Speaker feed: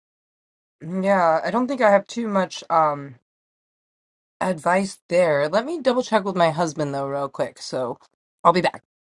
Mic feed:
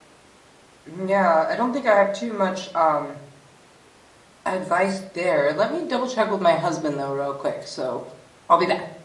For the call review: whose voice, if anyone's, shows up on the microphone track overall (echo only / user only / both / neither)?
echo only